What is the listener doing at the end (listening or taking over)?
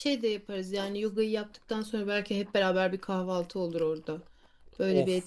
taking over